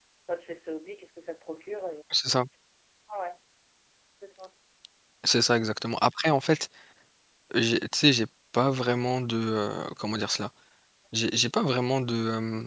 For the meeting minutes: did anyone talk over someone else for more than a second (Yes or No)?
No